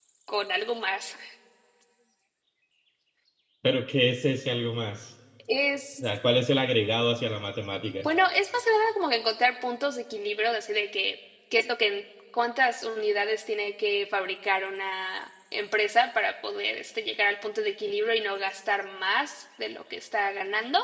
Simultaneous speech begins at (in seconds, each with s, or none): none